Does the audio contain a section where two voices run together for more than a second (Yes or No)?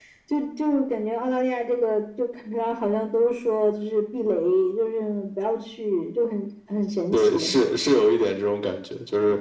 No